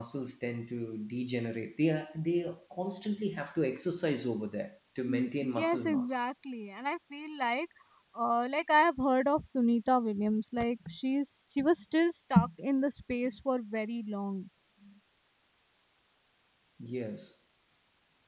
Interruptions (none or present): present